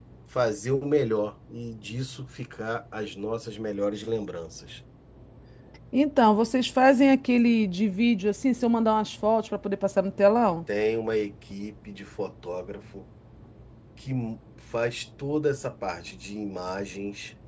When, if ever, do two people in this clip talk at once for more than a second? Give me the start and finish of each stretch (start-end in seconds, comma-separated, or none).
none